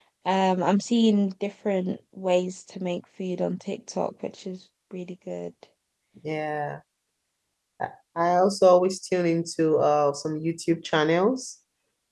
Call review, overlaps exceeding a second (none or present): none